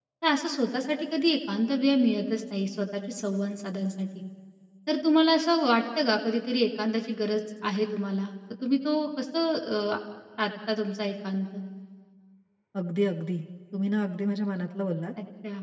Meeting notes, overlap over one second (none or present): none